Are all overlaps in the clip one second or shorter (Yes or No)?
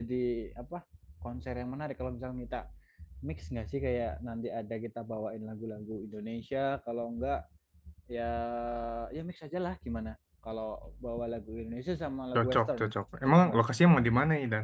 Yes